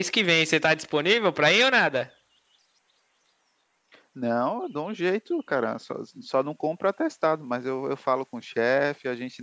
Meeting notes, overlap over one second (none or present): none